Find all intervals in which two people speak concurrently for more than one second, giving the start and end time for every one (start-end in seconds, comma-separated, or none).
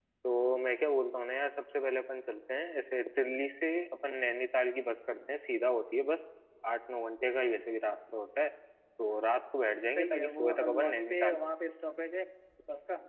9.7-11.5